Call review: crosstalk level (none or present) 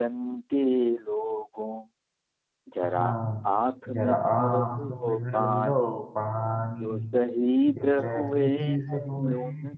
present